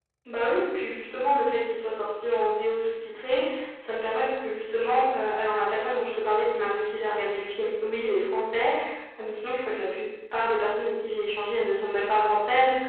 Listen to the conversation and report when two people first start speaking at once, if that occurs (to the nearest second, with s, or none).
none